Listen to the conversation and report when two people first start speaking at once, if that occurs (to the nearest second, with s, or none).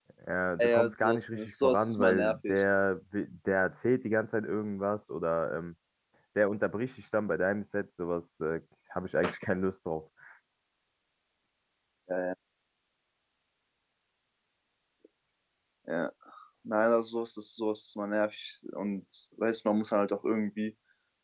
1 s